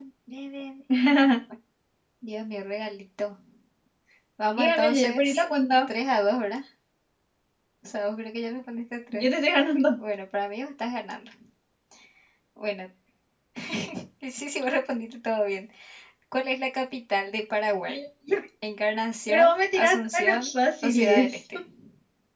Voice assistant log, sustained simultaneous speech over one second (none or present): present